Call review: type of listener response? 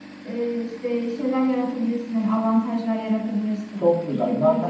taking over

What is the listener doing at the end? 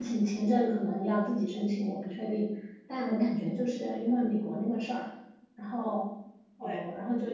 listening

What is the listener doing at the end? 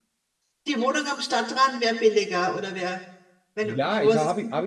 taking over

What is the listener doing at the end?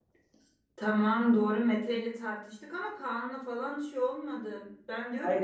listening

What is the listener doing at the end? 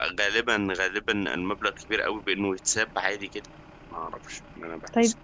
taking over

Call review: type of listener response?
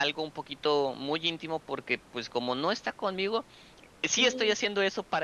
listening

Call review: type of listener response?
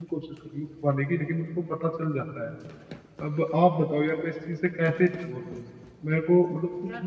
listening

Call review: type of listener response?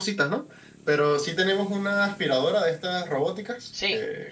taking over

